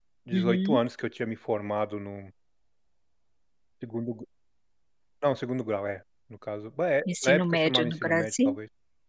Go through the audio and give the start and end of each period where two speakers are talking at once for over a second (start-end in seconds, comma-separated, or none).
7.1-8.6